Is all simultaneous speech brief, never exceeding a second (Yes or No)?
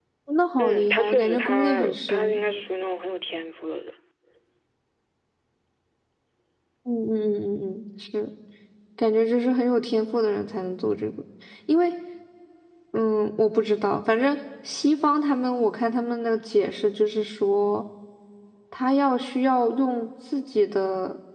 No